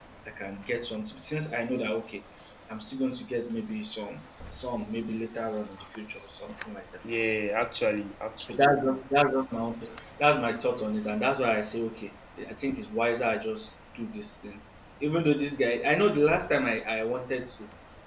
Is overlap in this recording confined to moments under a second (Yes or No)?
Yes